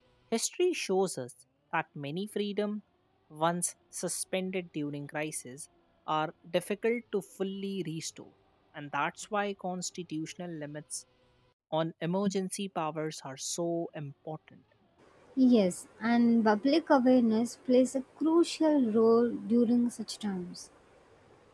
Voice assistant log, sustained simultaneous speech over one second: none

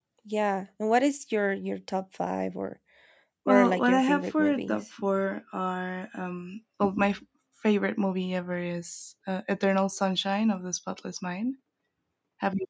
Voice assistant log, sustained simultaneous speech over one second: present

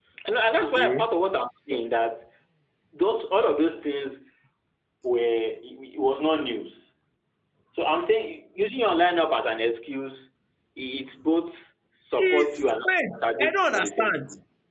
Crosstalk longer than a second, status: present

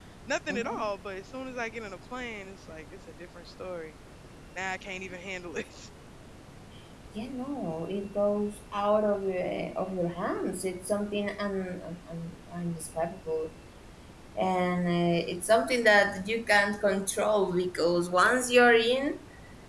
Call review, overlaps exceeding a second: none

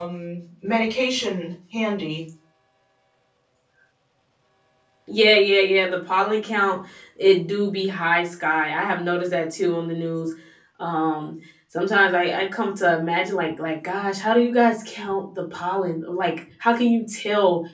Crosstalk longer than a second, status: none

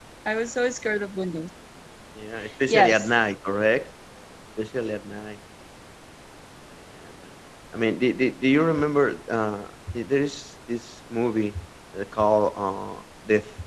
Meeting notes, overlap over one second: none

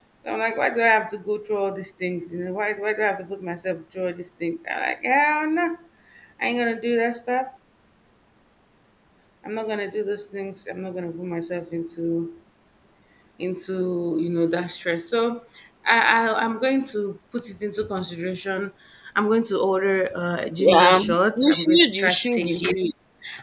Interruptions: present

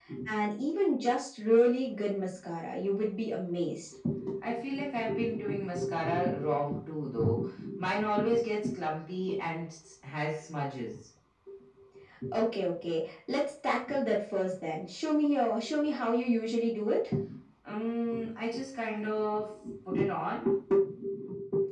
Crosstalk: none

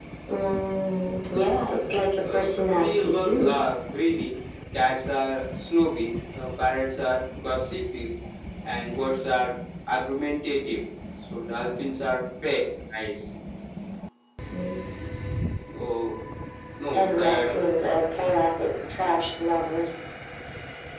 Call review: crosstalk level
present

